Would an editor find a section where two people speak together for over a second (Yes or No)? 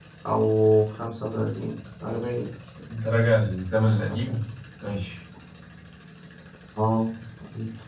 No